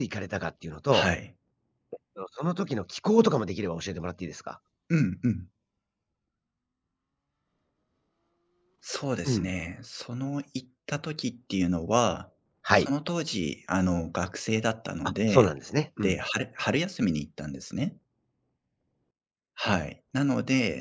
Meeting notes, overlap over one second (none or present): none